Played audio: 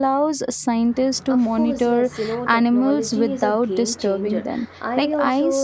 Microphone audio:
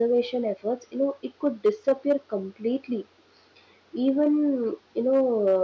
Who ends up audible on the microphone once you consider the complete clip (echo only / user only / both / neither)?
user only